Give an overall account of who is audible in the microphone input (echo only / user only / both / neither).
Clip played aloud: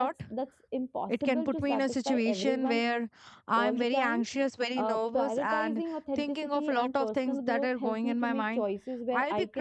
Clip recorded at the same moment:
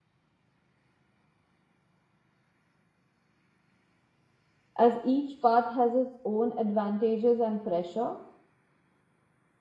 user only